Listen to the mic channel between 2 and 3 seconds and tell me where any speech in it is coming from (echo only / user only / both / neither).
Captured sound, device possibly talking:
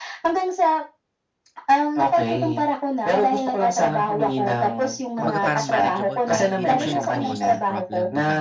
echo only